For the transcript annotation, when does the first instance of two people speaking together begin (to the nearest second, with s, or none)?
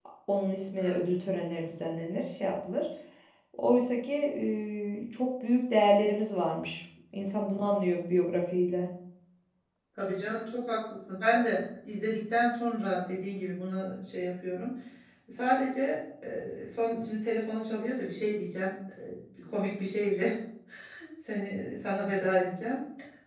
none